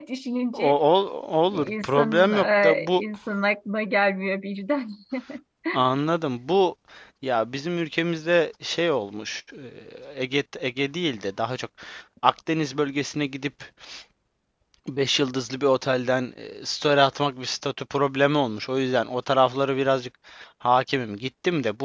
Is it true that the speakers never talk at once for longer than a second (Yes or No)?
No